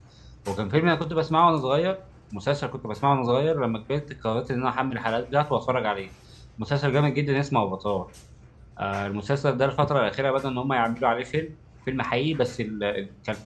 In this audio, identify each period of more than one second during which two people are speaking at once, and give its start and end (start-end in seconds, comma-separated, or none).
none